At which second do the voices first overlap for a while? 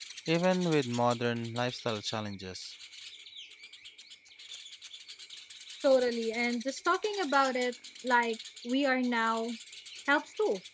none

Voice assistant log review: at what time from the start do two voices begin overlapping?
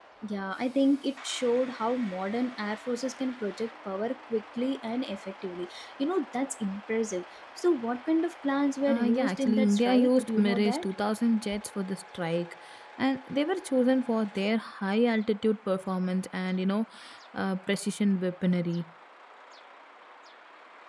9 s

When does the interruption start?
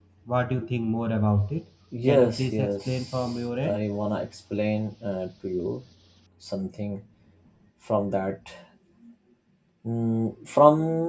2 s

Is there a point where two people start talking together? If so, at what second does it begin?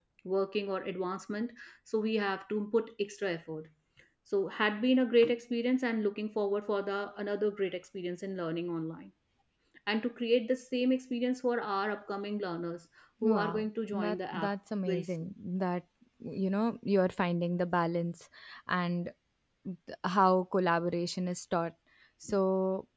13 s

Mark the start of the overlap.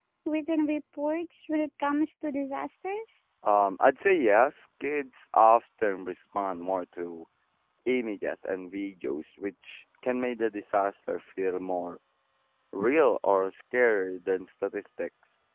none

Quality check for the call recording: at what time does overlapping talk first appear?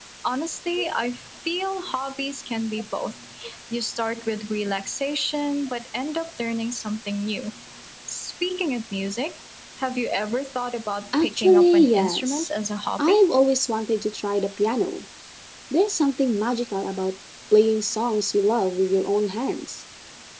11 s

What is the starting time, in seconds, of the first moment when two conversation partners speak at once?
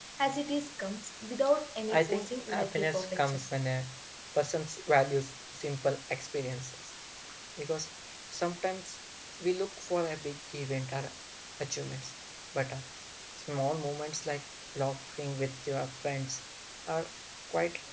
2 s

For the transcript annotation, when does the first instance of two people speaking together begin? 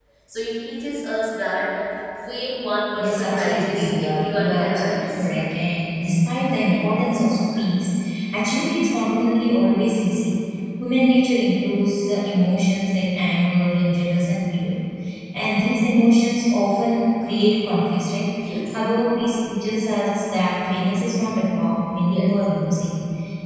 3 s

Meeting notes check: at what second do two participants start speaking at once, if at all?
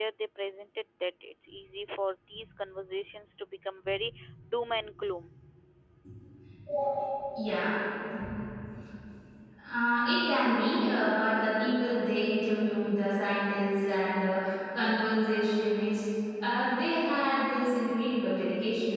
none

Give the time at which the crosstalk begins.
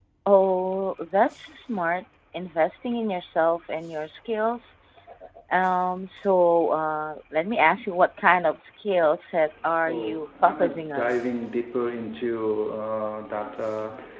10 s

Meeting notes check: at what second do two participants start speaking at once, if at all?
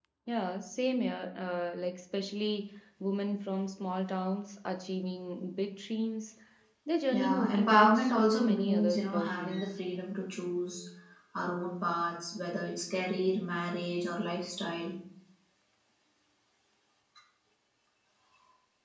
7 s

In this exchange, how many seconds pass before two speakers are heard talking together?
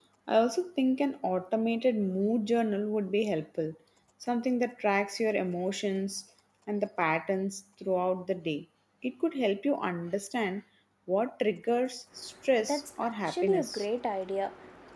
13 s

